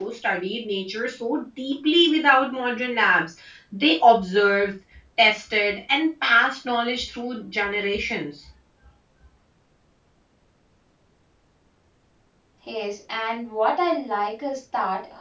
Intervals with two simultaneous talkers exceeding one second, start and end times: none

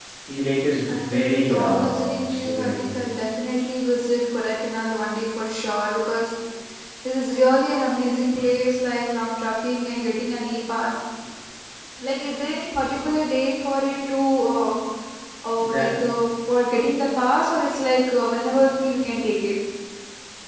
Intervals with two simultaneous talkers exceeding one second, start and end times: 0.9-2.9

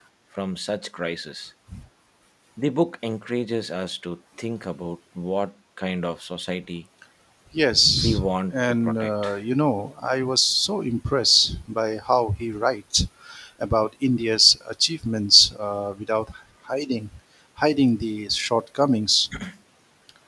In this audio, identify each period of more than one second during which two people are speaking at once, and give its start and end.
8.0-9.3

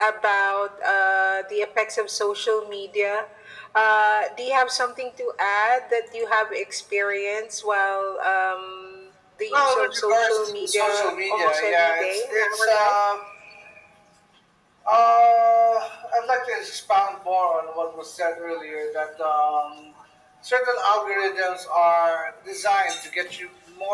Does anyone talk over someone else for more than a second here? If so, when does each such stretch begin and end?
9.5-13.0

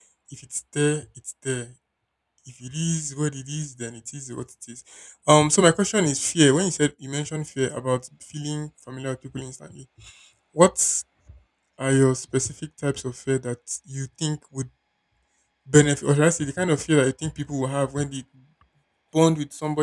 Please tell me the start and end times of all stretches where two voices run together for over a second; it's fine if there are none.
none

